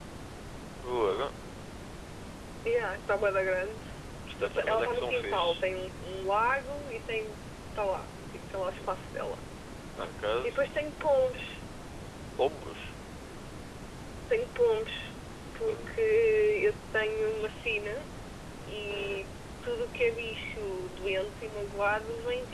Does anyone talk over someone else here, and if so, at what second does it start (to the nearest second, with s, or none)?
4 s